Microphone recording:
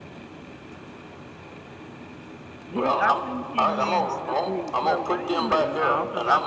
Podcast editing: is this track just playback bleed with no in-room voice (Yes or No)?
No